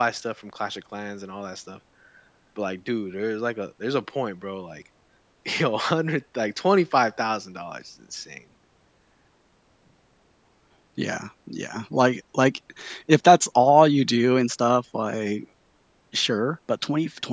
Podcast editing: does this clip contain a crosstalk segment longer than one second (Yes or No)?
No